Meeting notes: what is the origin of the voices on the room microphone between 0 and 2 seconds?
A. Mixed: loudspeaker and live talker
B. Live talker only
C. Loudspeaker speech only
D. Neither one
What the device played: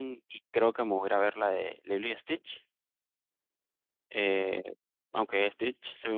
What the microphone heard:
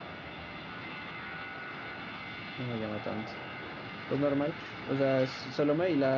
D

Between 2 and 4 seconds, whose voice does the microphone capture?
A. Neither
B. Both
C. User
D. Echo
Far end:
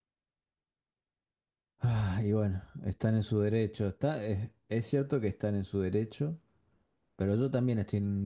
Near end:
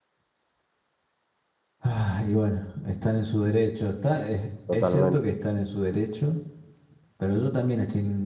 D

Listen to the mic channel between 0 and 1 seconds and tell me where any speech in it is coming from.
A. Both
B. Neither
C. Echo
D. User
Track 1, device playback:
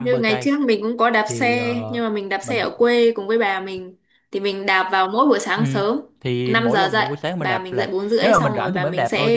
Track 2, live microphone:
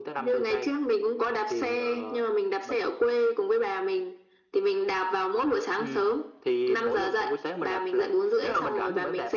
C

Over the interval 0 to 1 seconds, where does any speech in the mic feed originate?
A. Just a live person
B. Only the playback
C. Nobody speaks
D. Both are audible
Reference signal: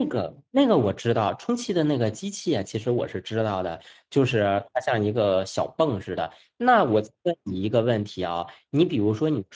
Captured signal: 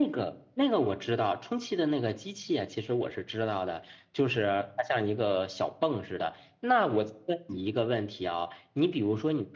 B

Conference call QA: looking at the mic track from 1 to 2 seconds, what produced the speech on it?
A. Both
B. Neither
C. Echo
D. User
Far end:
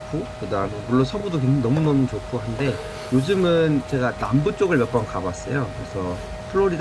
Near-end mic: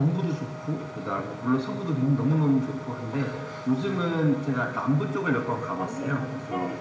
C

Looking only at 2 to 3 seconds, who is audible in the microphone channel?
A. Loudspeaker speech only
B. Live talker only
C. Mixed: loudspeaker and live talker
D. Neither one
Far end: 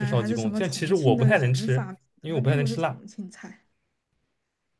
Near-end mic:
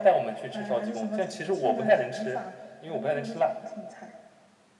A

